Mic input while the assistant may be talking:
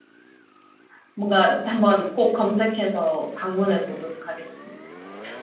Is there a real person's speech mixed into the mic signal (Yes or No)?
Yes